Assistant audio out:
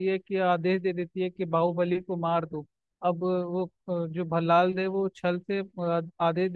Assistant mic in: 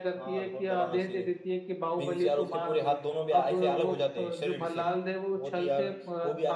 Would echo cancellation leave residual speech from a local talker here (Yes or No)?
Yes